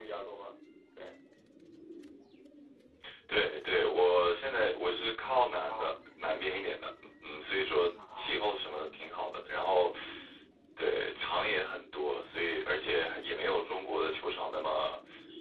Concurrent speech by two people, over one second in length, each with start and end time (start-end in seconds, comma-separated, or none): none